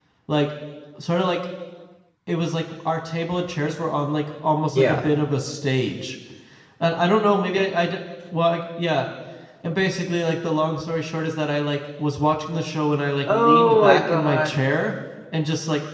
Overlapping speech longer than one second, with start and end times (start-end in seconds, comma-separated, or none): 13.3-14.6